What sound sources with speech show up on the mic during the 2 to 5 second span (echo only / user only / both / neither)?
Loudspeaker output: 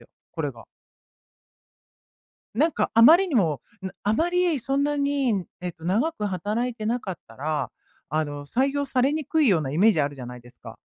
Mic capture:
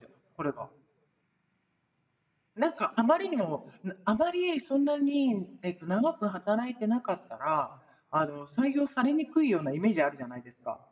echo only